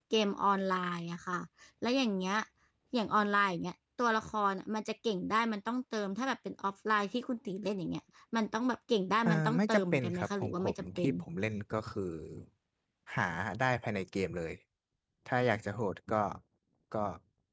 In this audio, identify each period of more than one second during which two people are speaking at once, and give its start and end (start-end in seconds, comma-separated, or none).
9.2-11.1